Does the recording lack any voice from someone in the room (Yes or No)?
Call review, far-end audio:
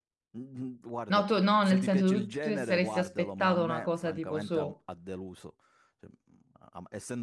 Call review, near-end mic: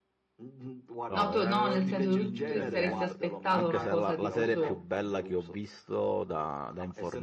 No